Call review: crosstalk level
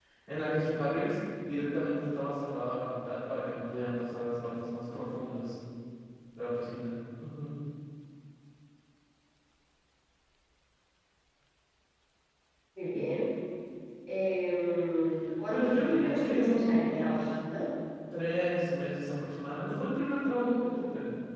present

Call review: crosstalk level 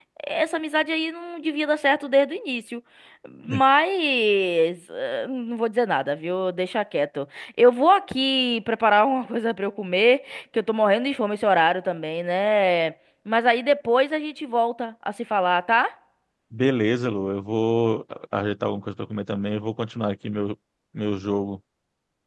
none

